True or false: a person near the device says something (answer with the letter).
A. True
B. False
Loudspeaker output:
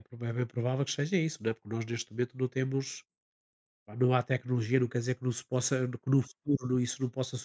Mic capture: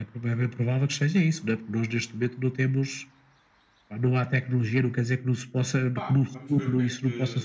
A